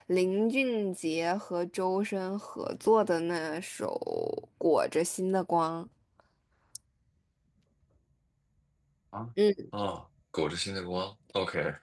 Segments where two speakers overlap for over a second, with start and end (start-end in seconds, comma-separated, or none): none